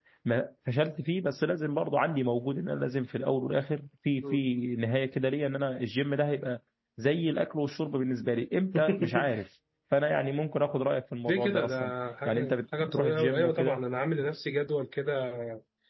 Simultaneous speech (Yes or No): Yes